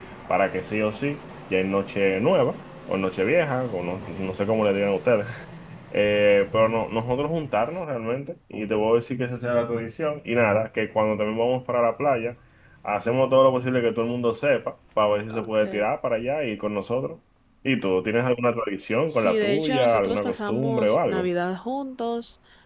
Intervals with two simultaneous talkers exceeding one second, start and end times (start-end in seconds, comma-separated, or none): 19.2-21.3